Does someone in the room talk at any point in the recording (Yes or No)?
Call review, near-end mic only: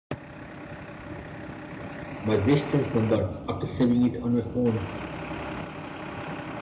Yes